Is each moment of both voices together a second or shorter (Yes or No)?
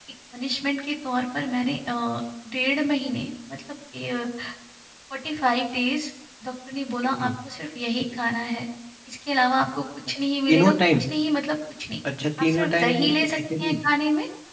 No